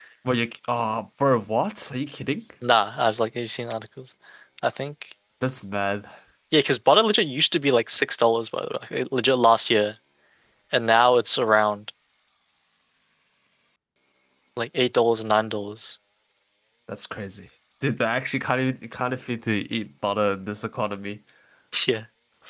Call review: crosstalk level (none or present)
none